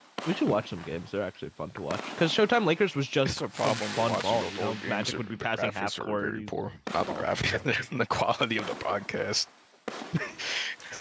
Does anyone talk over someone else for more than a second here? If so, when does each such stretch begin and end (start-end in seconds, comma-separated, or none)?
3.3-6.5